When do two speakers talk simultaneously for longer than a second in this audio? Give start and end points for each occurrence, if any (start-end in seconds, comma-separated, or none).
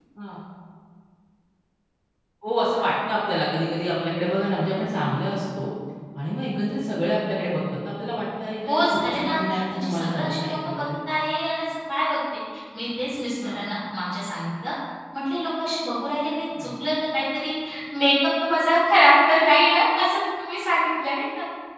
8.7-10.8